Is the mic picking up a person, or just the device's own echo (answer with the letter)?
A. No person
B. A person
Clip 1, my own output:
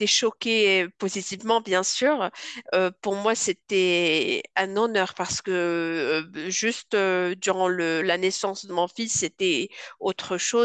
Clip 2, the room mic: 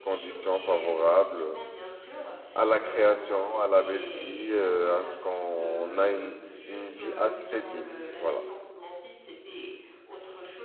B